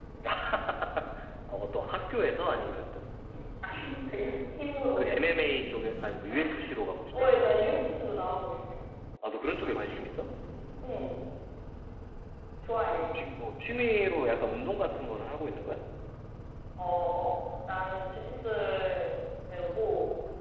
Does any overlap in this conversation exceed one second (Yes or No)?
No